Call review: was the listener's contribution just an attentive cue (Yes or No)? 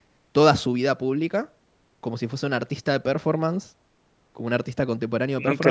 No